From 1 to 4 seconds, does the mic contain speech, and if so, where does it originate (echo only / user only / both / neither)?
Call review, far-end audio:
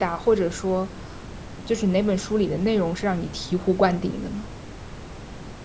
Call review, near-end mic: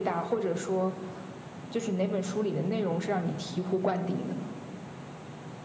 echo only